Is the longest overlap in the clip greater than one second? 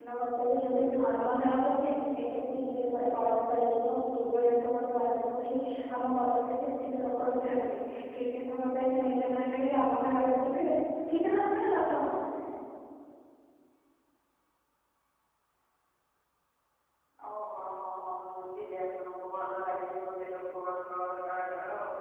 No

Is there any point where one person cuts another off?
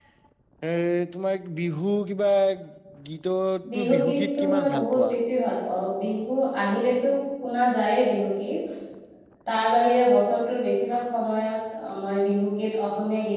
Yes, from 3.7 s

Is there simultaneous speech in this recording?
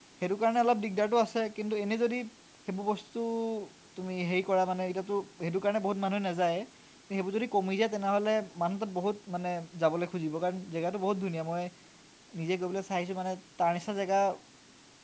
No

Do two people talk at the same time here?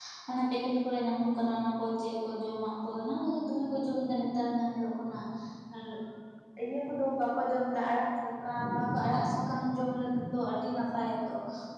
No

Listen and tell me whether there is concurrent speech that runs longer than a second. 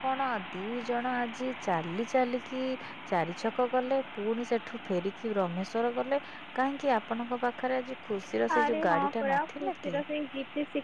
Yes, from 8.5 s

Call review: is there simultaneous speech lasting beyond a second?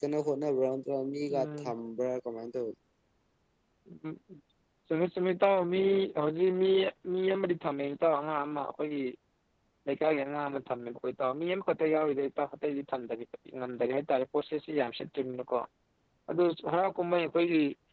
No

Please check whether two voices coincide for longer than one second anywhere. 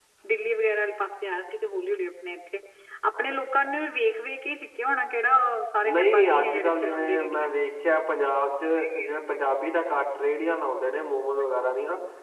Yes, from 5.8 s

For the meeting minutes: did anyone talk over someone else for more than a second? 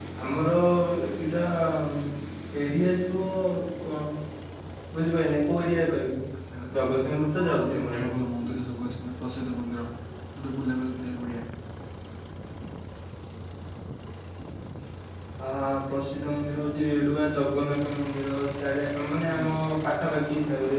Yes, from 6.8 s

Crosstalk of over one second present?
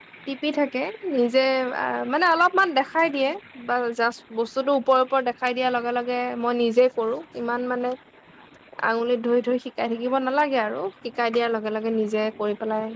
No

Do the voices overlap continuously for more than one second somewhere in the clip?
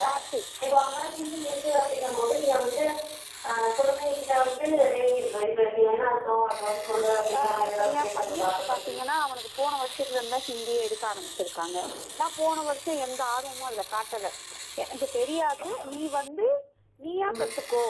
Yes, from 7.4 s

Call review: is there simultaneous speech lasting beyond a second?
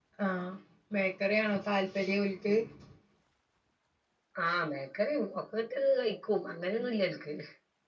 No

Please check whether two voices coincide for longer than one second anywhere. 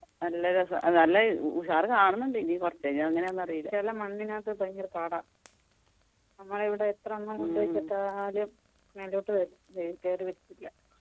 No

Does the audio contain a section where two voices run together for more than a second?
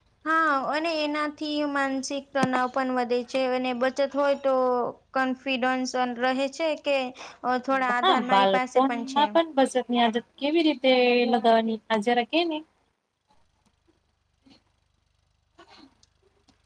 Yes, from 8.0 s

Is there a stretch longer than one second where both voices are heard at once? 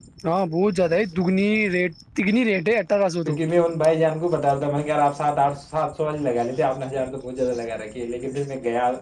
No

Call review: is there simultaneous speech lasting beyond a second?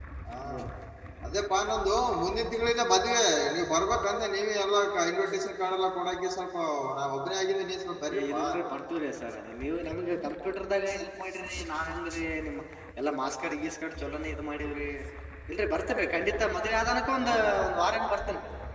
No

